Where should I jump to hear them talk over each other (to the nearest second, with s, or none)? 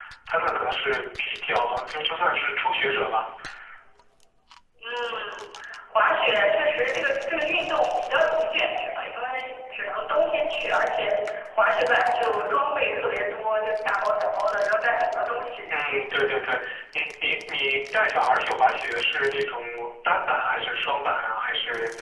none